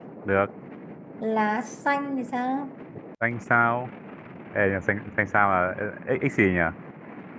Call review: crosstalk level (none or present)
none